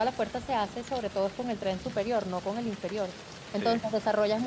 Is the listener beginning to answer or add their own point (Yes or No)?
No